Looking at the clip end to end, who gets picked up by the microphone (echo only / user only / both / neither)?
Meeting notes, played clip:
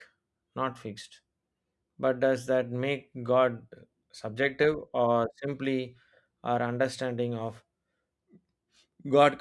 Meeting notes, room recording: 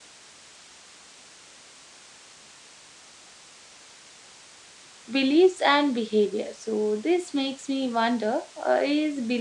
user only